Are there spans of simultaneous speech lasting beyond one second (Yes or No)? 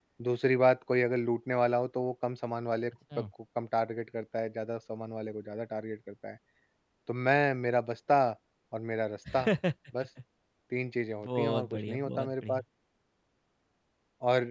Yes